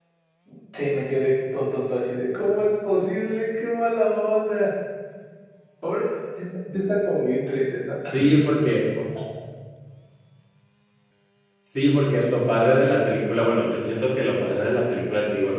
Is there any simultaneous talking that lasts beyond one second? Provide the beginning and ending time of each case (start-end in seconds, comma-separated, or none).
none